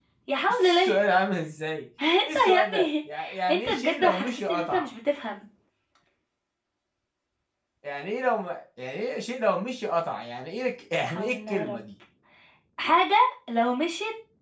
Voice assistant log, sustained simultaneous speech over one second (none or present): present